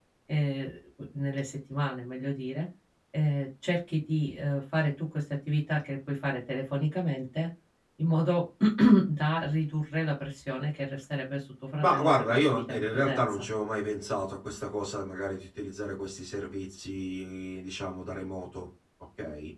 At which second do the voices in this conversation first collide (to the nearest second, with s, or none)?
12 s